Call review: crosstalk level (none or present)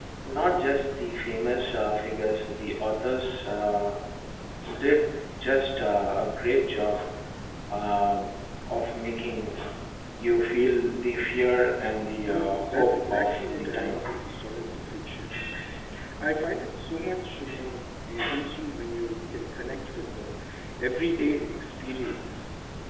present